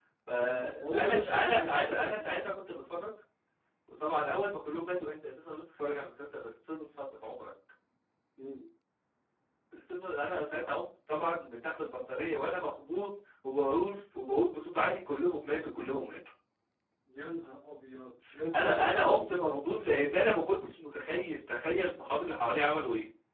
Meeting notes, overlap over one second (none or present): present